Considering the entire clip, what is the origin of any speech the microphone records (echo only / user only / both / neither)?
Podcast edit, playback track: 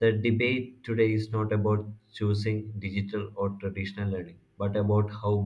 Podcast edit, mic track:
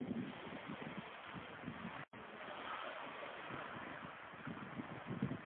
neither